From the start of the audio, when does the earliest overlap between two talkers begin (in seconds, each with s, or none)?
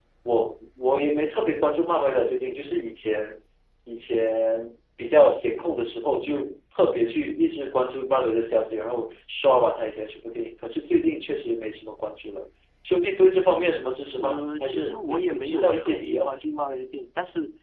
14.2 s